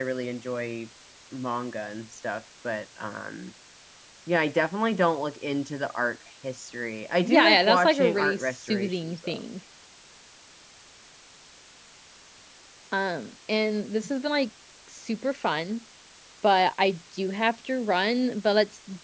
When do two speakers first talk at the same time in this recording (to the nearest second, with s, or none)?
7 s